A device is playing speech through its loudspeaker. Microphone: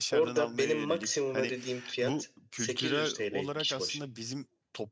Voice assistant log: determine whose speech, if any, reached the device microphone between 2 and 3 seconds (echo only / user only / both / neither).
both